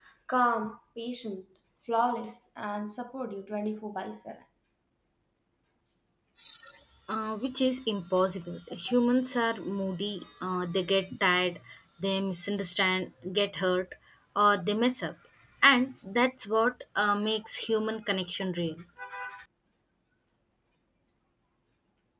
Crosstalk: none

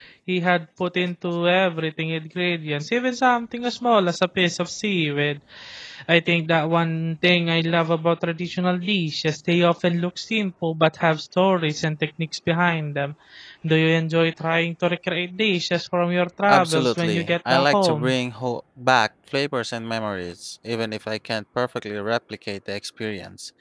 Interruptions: present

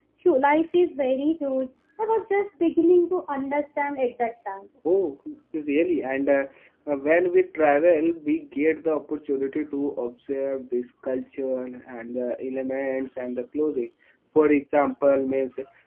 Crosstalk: none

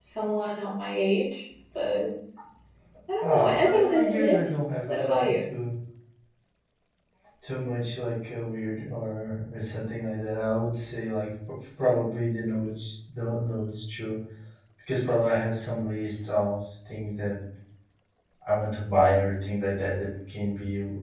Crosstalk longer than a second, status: present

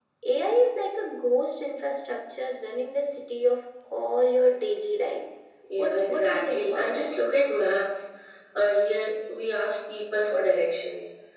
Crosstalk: present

